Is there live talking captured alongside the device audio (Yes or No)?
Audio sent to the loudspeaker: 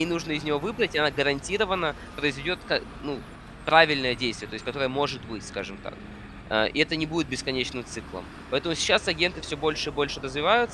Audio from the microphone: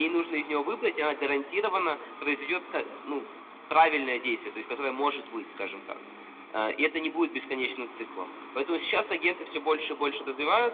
No